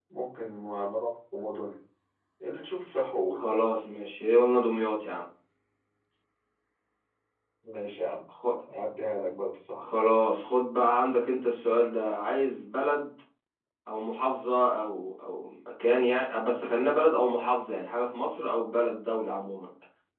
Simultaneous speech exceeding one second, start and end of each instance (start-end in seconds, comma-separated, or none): none